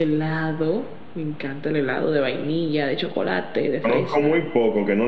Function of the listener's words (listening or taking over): taking over